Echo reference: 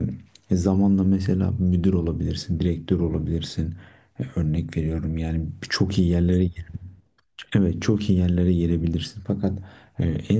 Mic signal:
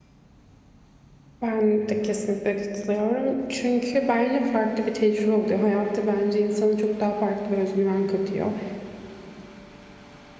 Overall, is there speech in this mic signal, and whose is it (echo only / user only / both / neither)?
user only